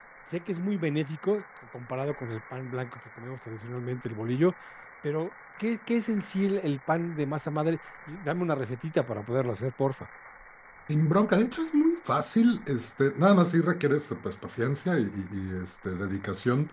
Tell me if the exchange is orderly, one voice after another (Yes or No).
Yes